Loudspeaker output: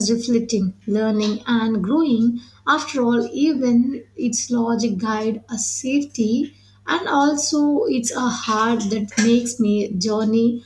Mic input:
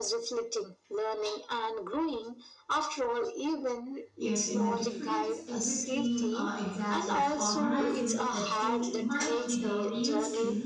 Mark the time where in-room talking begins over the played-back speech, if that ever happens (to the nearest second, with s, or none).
4 s